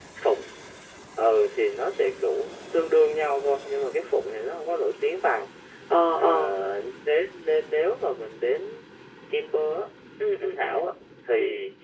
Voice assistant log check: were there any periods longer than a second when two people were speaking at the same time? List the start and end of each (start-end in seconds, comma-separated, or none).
none